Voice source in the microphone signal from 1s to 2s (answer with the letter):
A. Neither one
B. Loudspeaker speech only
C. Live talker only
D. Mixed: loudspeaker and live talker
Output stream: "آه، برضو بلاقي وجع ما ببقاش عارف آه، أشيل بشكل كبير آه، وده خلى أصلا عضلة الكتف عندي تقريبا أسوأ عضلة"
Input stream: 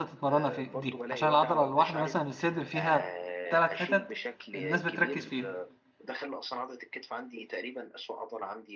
D